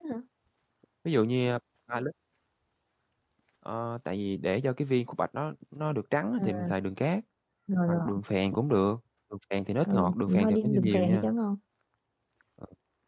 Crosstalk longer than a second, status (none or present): present